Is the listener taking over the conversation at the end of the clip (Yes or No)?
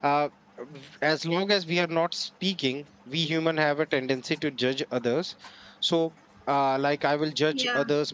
No